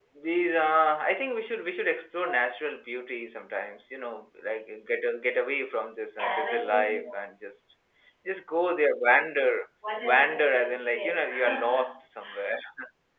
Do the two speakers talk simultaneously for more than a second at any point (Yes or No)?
Yes